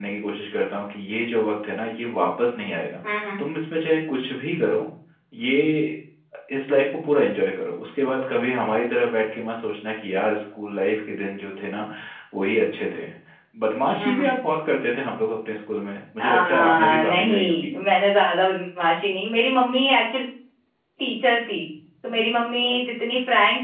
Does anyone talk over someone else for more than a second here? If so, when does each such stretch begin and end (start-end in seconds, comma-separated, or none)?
16.2-17.7